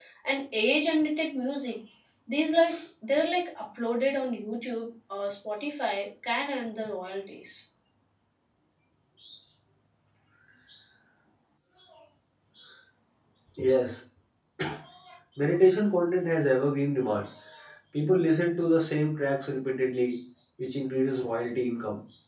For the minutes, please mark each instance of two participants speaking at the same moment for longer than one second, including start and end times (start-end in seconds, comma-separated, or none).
none